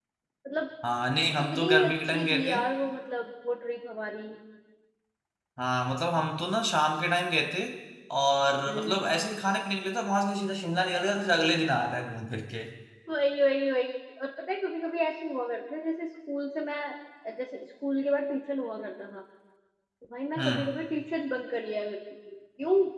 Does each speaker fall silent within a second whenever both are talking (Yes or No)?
No